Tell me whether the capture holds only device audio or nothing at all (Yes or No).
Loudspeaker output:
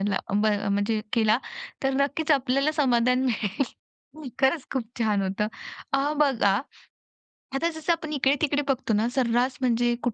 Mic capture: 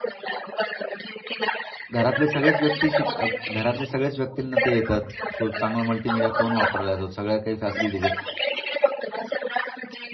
No